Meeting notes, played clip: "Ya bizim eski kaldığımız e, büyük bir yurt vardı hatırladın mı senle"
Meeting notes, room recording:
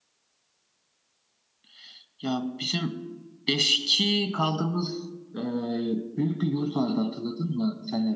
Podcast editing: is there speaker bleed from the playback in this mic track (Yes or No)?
Yes